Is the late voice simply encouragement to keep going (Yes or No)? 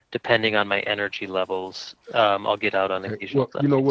No